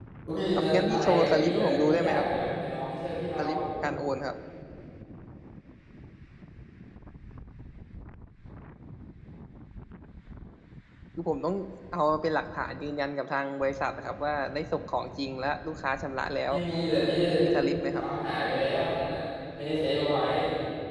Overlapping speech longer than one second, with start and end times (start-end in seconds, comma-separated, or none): 0.5-2.2